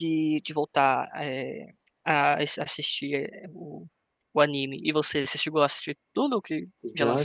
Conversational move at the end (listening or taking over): taking over